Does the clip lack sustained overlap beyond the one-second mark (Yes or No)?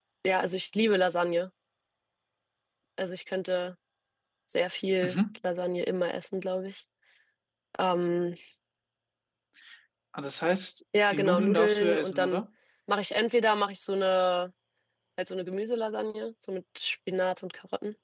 No